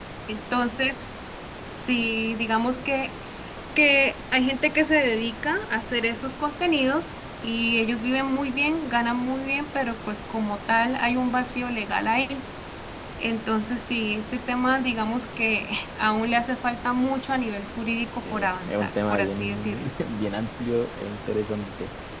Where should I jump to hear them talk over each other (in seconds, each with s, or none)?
18.2 s